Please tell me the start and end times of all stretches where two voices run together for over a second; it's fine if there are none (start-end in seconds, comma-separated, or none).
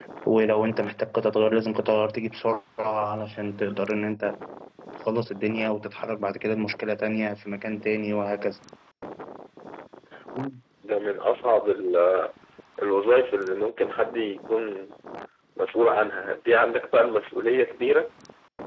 none